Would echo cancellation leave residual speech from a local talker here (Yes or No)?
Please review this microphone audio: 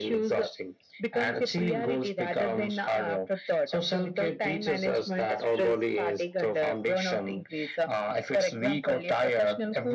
No